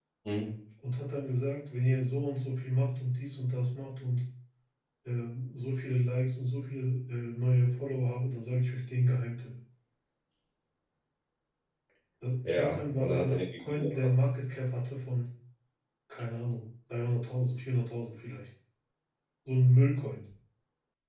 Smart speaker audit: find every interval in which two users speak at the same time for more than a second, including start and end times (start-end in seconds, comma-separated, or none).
12.4-13.9